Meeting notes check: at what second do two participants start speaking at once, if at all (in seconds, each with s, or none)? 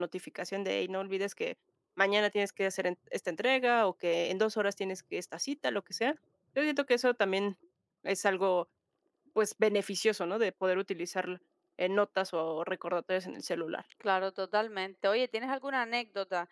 none